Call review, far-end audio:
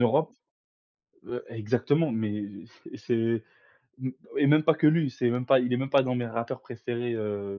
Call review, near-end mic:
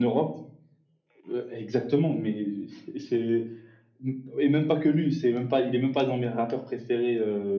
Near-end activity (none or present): none